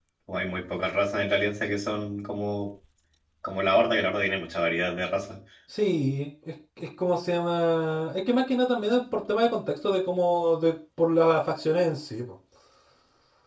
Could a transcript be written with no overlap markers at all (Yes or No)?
Yes